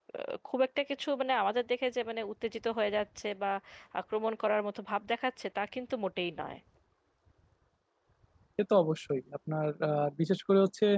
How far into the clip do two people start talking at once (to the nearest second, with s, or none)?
none